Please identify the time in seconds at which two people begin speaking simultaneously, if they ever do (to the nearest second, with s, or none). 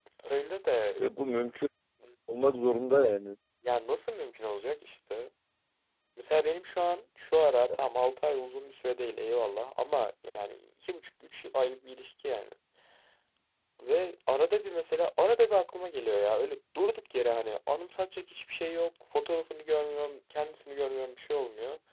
none